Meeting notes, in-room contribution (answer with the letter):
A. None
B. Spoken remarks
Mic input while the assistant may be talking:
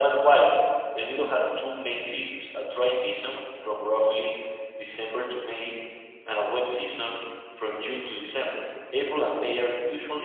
A